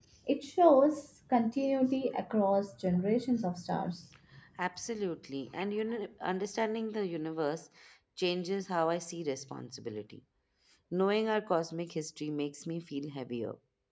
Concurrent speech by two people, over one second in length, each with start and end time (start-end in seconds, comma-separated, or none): none